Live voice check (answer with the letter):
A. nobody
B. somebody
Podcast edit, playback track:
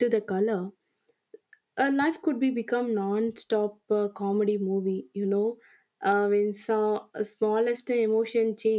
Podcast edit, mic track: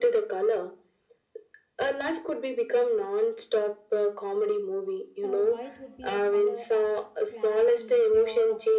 B